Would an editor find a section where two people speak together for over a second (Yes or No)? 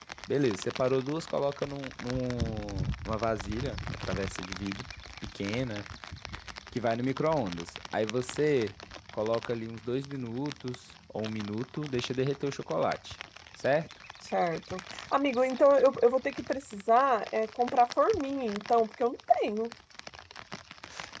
No